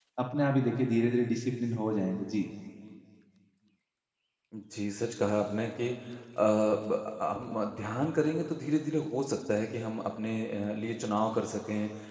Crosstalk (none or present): none